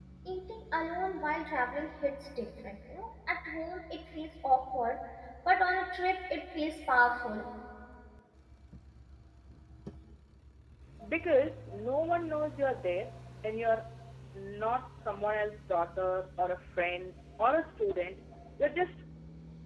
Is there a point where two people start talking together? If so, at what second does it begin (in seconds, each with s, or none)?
none